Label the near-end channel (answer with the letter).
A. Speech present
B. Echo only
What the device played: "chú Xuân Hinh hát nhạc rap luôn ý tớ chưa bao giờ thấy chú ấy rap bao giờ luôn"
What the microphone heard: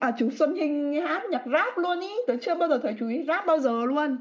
B